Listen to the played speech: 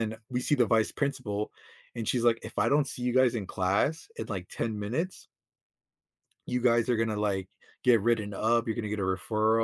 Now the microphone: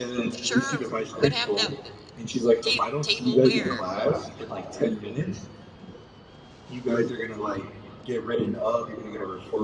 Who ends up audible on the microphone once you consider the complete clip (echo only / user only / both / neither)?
both